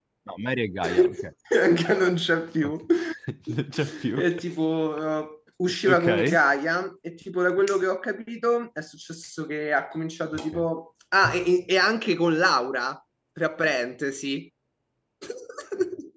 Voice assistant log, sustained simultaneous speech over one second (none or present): none